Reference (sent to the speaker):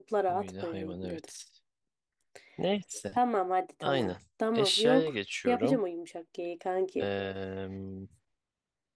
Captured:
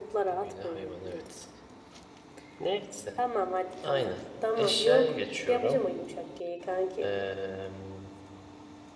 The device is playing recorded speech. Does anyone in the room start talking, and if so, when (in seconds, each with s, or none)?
none